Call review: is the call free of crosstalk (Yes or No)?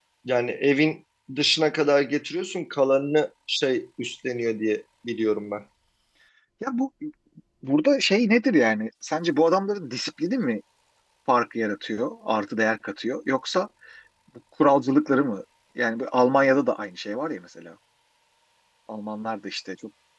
Yes